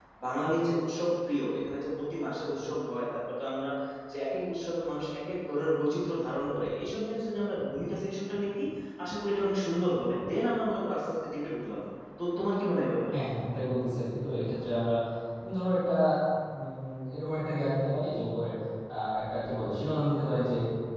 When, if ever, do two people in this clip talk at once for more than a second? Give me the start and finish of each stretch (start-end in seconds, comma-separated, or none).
none